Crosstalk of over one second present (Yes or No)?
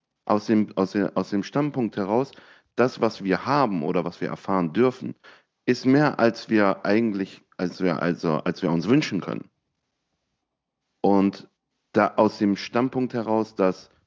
No